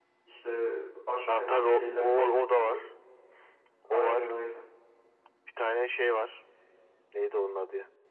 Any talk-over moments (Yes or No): Yes